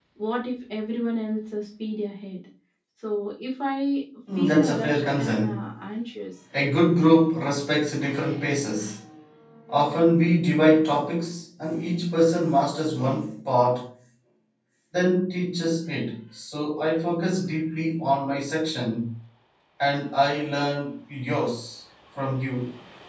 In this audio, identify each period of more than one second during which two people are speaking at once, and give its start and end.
4.3-5.7

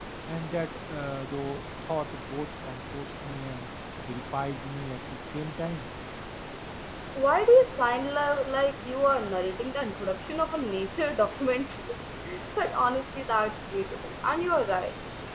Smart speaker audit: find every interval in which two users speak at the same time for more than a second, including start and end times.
none

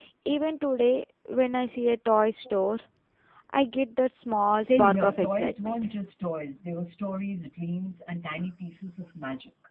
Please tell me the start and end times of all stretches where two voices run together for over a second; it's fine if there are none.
4.6-5.8

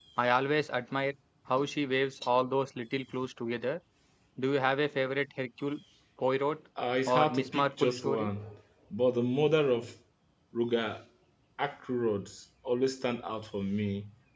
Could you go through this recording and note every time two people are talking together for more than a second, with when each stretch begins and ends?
7.1-8.3

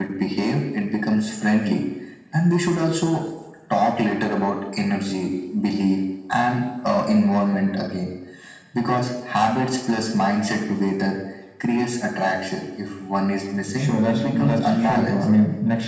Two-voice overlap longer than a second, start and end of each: 13.8-15.2

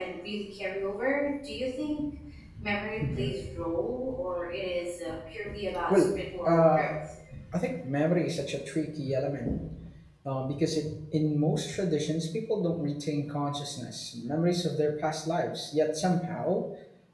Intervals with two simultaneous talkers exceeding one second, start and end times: none

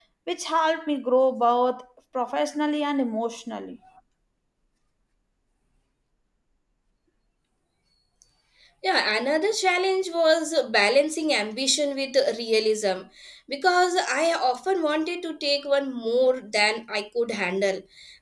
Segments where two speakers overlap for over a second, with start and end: none

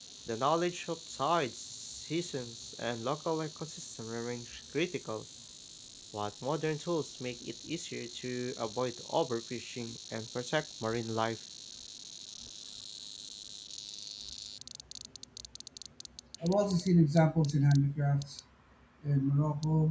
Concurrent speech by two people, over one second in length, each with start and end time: none

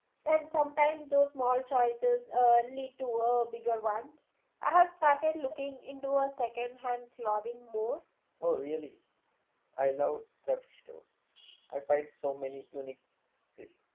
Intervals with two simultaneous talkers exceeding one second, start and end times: none

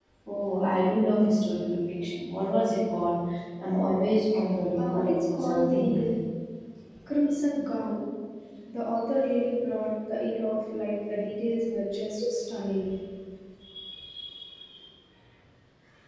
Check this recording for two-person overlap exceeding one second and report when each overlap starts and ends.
4.8-6.1

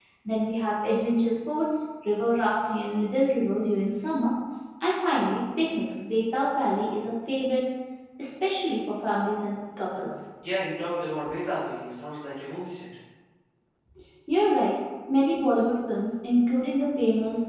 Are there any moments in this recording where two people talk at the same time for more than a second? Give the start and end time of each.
none

